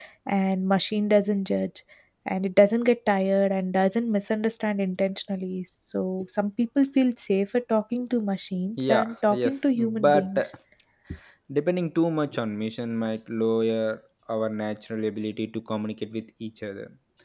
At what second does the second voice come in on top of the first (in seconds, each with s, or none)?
8.8 s